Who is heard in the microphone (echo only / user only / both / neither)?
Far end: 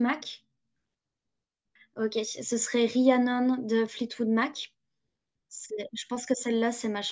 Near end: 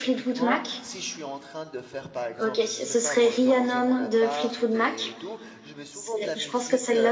both